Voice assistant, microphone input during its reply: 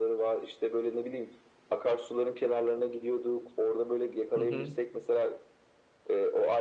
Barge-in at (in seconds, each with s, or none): 4.3 s